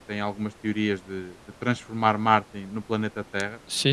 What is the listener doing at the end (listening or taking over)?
listening